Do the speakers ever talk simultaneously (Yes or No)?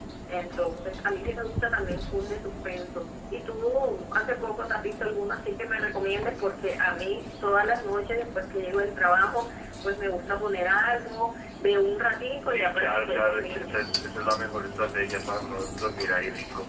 Yes